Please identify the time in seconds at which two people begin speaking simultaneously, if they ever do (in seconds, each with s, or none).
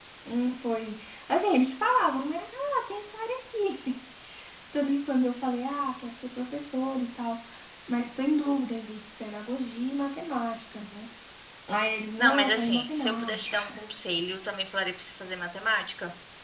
12.2 s